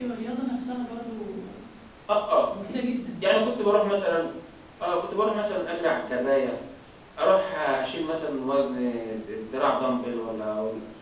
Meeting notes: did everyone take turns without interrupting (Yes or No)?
Yes